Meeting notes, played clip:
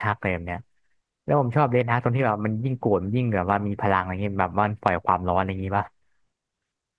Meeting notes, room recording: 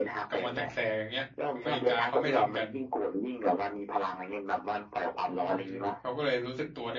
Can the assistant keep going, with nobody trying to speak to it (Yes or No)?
No